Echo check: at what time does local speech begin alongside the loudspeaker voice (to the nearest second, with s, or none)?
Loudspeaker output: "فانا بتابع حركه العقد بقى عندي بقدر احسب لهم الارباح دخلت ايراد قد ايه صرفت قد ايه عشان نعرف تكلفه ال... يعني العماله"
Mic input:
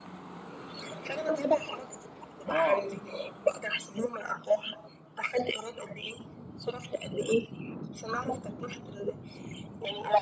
2 s